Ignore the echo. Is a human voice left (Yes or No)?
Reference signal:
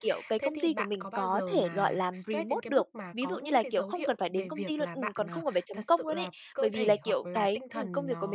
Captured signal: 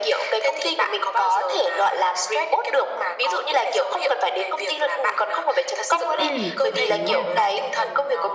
Yes